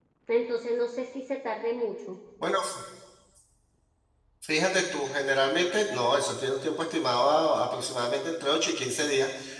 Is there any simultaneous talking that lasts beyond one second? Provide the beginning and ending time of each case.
none

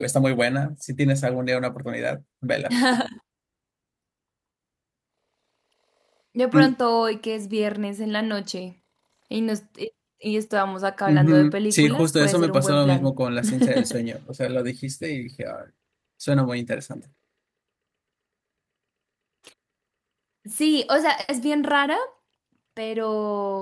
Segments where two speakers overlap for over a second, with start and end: 11.1-13.1

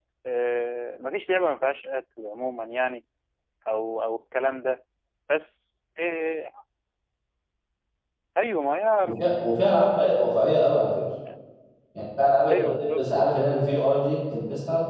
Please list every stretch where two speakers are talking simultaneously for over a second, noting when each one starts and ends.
none

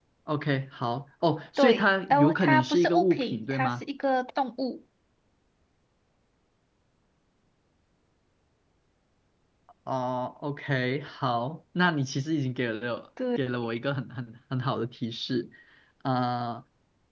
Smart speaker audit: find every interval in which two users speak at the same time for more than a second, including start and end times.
1.6-3.8

